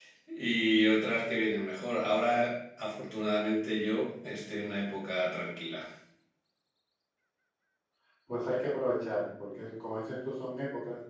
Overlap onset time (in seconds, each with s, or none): none